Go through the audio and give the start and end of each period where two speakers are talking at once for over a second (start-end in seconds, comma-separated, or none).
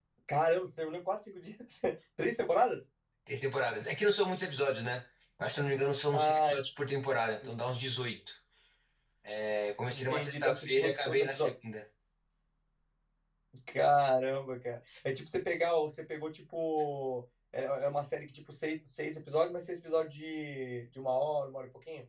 9.9-11.5